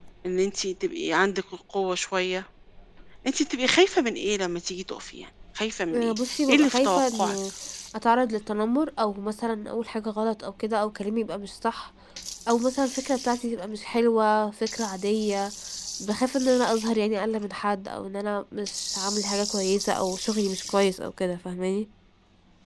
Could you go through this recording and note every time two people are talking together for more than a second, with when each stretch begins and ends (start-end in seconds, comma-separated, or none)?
5.9-7.4